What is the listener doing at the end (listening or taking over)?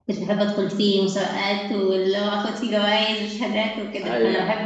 listening